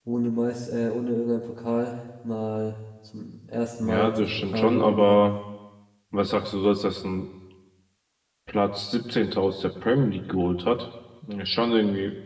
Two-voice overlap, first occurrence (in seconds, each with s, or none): 3.8 s